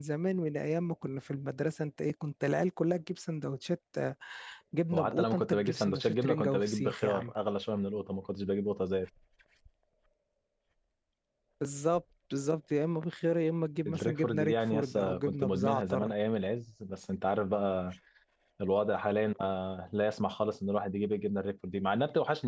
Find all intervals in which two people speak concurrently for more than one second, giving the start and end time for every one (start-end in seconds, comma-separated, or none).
4.9-7.3, 13.9-16.1